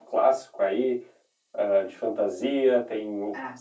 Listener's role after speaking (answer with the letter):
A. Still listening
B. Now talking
A